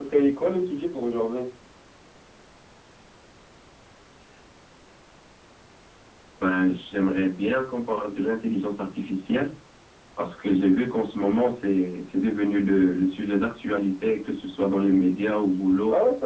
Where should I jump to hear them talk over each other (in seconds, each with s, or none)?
none